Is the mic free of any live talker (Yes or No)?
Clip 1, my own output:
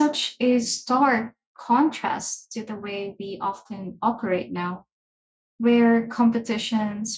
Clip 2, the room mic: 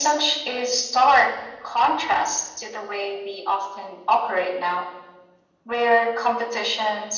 Yes